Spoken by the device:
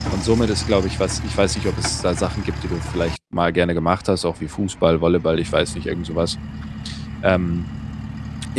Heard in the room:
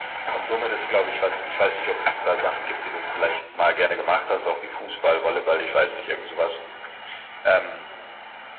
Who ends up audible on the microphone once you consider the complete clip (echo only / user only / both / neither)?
echo only